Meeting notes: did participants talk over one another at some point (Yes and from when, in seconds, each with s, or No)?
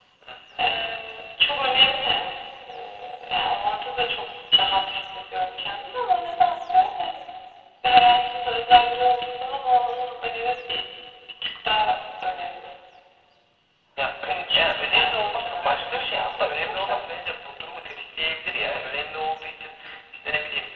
Yes, from 14.3 s